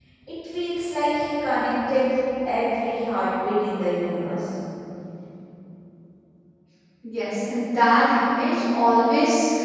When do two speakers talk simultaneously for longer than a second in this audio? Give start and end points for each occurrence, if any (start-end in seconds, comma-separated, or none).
none